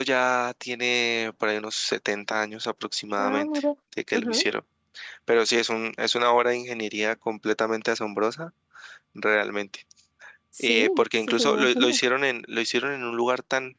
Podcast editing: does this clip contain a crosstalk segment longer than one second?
Yes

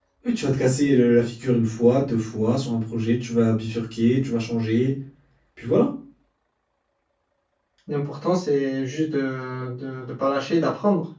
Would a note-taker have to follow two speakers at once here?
No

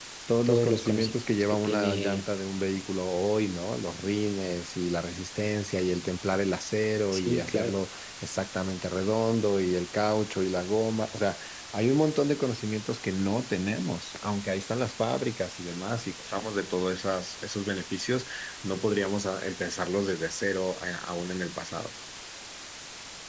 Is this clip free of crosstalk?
No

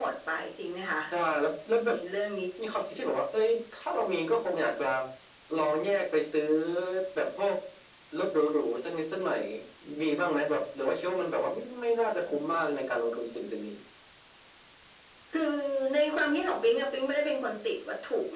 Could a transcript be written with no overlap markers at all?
Yes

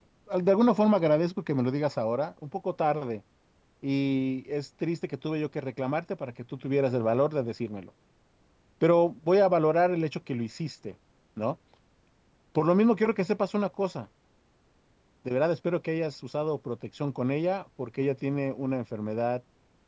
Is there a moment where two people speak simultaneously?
No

